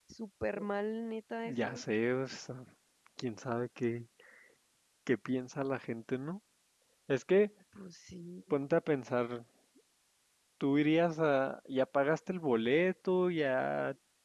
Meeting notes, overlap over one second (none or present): none